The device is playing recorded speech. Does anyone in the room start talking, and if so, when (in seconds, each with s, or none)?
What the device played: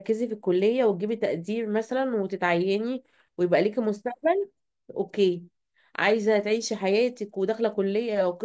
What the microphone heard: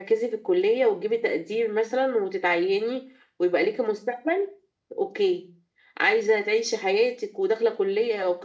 none